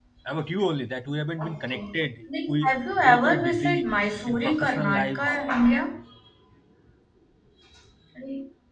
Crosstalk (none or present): present